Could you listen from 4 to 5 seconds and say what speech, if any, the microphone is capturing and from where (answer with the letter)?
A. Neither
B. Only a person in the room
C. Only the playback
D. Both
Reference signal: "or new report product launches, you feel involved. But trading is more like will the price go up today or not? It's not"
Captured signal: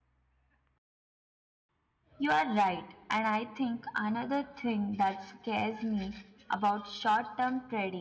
B